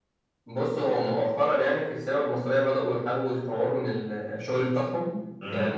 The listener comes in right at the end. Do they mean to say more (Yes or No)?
No